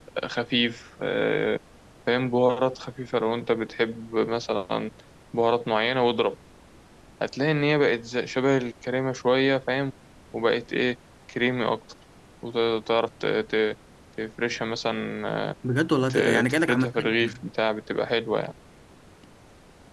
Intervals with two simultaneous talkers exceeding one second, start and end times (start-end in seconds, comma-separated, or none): 16.1-17.4